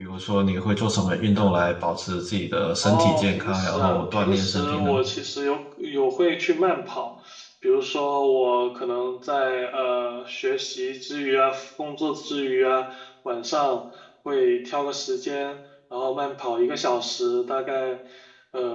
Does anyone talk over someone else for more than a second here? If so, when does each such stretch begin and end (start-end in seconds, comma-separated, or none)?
2.8-4.9